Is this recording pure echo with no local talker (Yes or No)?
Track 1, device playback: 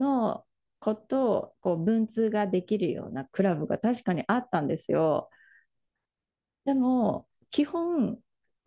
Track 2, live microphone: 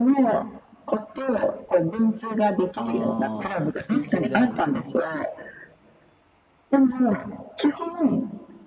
No